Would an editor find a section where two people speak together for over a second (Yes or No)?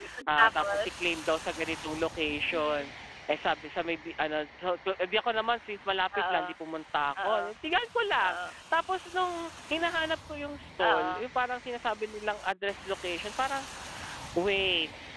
No